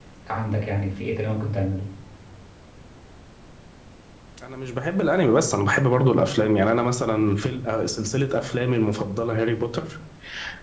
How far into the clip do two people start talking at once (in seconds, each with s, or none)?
none